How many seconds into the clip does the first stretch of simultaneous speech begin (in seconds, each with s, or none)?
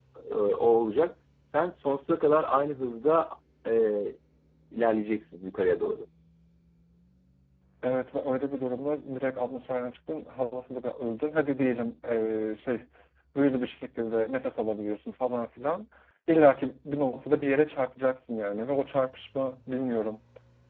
none